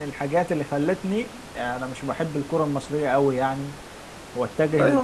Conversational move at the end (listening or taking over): taking over